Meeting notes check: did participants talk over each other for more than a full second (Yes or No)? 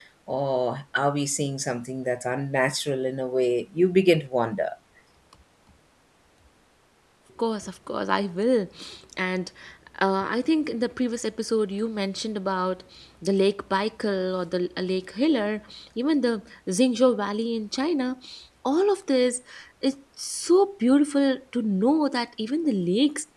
No